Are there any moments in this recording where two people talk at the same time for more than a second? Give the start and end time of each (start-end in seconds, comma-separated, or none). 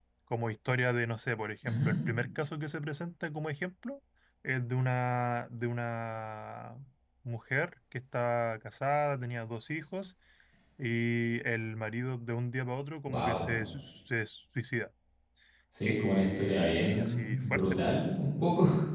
15.8-17.8